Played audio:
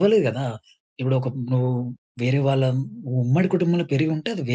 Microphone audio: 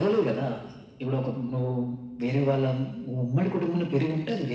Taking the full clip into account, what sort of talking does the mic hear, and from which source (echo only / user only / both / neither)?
echo only